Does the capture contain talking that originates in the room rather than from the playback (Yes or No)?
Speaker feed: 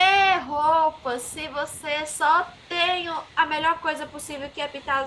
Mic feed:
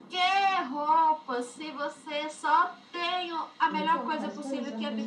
Yes